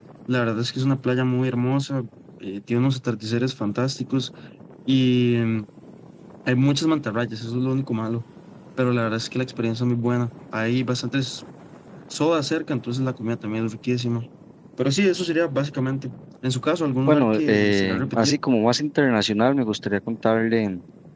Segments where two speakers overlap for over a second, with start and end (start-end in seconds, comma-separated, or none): 17.0-18.4